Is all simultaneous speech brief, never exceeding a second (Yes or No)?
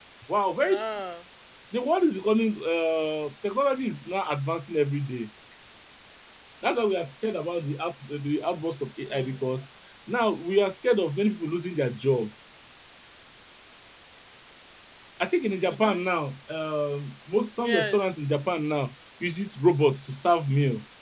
Yes